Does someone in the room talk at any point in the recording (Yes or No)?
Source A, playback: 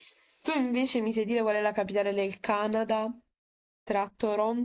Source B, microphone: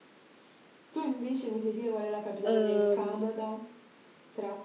Yes